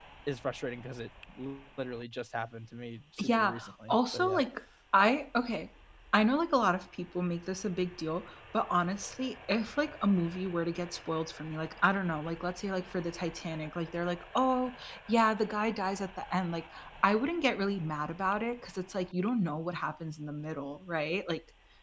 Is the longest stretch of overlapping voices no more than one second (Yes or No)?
No